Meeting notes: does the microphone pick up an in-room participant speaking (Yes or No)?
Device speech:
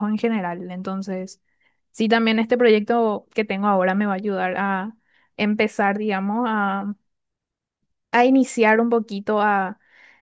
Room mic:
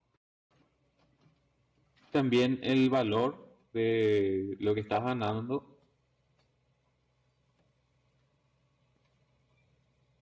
Yes